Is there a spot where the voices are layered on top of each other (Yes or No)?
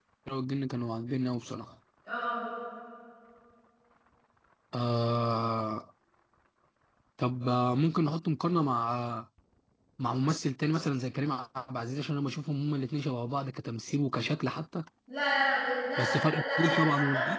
Yes